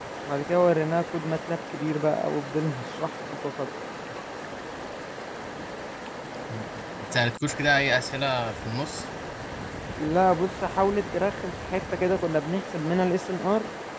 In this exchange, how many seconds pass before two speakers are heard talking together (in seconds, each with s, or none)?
none